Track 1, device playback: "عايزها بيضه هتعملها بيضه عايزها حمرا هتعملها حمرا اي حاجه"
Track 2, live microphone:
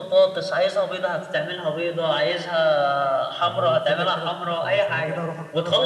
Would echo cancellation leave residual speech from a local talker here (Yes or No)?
Yes